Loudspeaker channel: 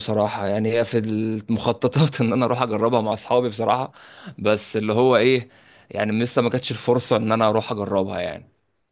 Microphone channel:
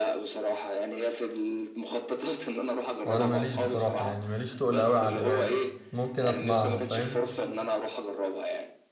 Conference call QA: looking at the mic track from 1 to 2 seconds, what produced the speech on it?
echo only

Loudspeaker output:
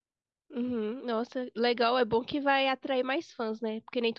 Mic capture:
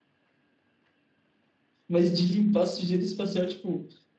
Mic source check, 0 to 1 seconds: neither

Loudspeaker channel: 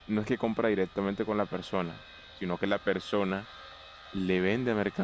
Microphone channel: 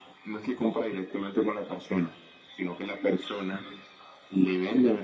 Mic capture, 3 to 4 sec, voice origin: echo only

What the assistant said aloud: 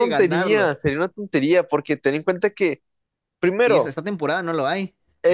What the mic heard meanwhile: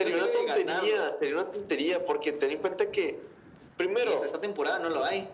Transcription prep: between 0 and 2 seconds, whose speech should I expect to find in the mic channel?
echo only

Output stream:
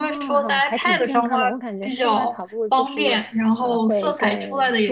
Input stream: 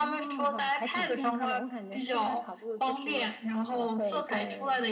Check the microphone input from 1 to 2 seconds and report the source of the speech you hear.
echo only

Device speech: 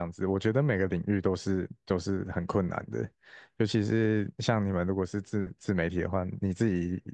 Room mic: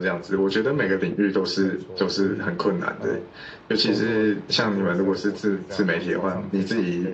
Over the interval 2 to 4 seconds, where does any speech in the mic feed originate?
both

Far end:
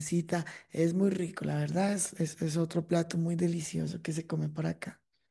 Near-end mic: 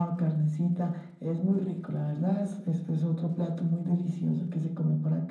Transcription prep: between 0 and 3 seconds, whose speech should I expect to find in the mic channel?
echo only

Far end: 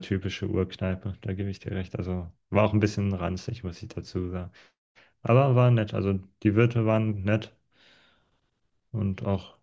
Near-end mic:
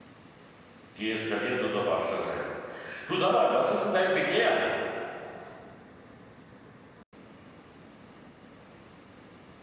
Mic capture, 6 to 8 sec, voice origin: neither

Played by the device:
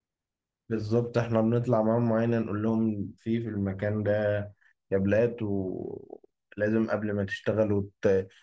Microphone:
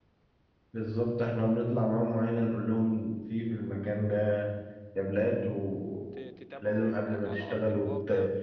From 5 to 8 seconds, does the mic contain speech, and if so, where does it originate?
both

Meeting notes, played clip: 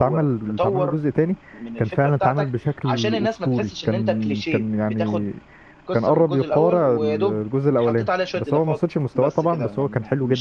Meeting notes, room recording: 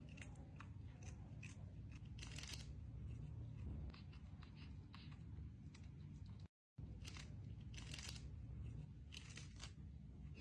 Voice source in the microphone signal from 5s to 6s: neither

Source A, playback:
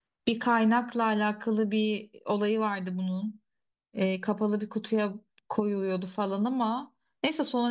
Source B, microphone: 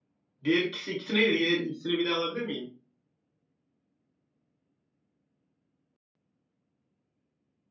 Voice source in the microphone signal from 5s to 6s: neither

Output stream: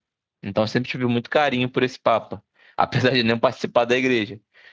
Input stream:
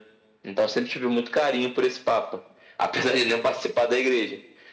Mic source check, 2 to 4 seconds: echo only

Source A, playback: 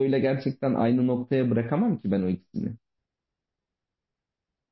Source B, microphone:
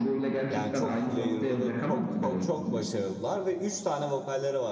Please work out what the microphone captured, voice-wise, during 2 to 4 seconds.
both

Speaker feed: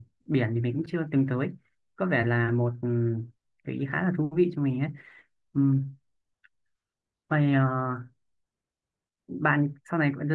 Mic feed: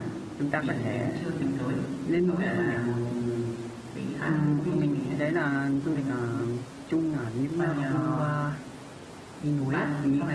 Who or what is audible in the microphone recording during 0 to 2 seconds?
both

